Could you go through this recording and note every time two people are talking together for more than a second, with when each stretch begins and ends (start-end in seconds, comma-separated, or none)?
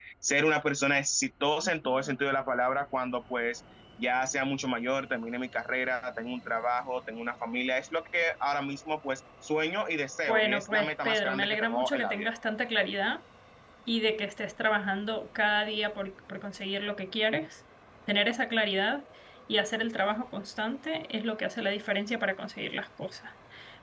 10.3-12.3